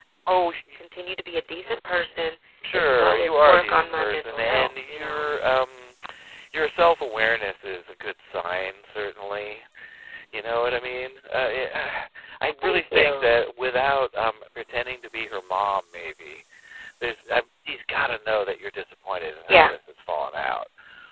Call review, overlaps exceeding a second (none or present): present